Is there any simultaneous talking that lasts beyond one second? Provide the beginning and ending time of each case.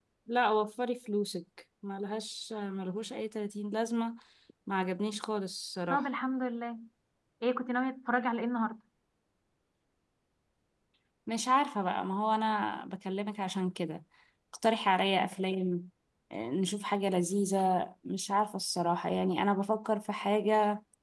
none

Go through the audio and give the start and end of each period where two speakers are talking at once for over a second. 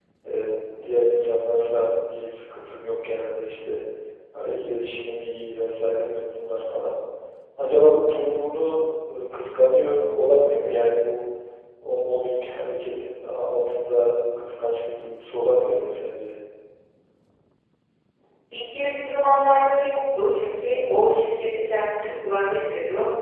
none

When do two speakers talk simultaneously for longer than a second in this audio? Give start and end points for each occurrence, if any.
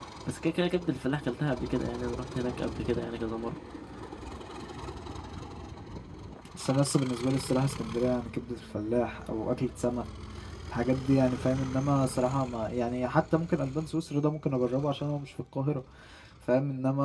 none

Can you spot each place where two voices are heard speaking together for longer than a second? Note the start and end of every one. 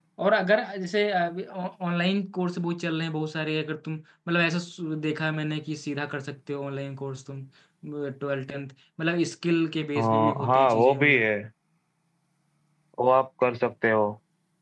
10.0-11.3

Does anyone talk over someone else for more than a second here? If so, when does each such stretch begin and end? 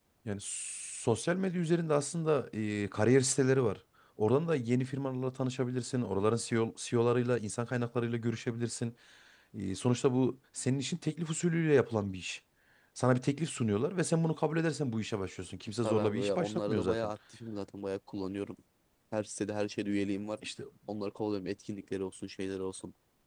15.8-17.1

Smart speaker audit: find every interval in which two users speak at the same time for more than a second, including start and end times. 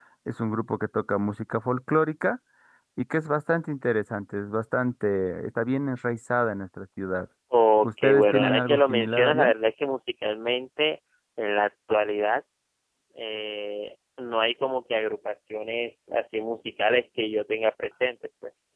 7.8-9.5

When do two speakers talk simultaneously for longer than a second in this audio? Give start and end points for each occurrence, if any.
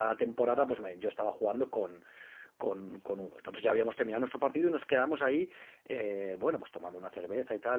none

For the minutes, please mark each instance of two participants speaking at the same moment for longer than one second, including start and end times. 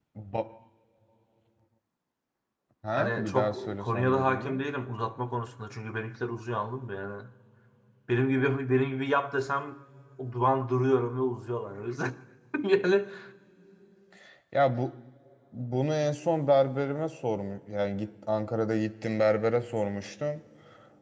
2.9-4.6

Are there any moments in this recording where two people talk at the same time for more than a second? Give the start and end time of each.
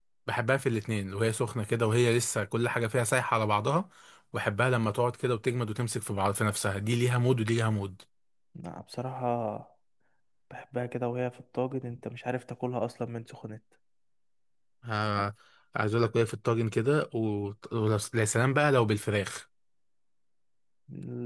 none

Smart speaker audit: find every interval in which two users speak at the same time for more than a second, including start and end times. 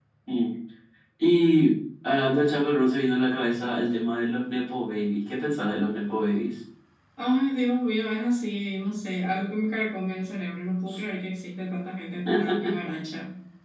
none

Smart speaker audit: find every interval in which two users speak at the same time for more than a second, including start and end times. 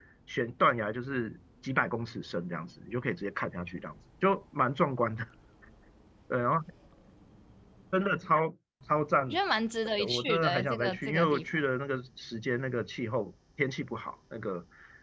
10.0-11.4

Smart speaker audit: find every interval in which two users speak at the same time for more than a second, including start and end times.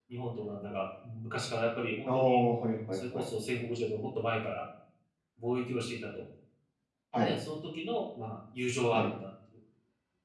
none

